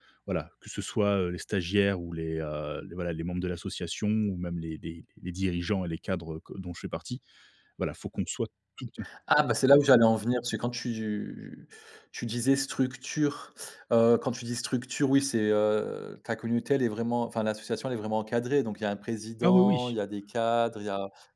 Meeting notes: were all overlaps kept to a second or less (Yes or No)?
Yes